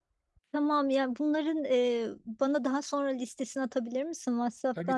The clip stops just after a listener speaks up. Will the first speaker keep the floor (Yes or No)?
No